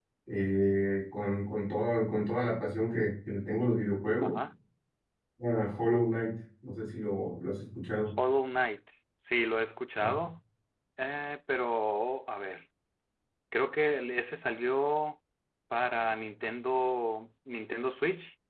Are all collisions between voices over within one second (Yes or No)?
Yes